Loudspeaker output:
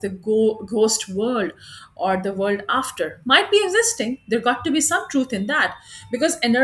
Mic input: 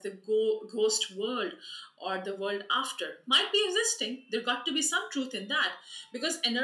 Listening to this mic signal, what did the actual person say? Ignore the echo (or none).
none